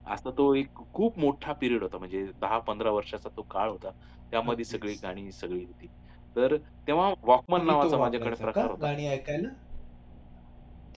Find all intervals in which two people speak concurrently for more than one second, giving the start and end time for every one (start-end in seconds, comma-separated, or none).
7.6-8.8